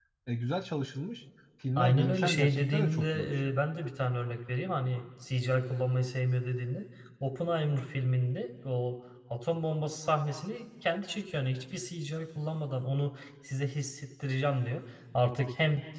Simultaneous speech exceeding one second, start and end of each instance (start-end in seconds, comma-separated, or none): 1.8-3.5